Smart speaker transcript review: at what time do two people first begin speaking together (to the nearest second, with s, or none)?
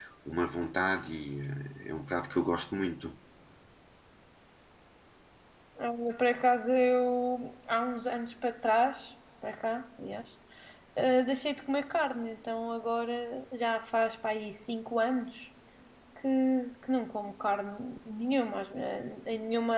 none